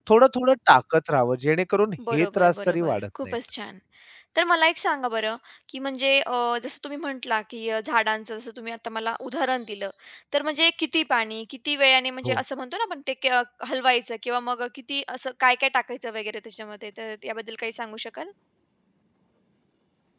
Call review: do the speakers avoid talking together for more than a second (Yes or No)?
No